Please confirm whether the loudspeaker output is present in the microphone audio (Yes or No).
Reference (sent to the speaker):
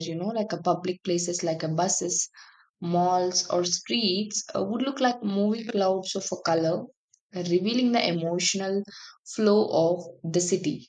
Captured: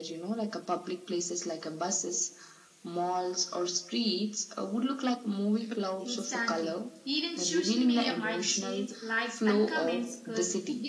Yes